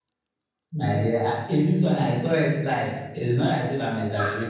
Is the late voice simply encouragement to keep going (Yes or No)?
Yes